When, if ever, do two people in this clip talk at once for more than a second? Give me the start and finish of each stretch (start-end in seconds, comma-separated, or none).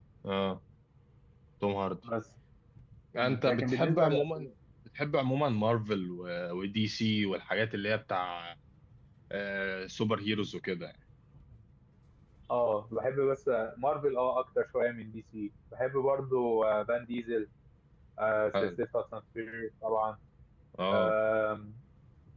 3.2-4.5